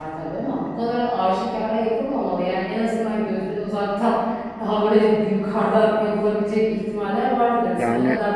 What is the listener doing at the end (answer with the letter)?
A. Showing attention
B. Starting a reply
A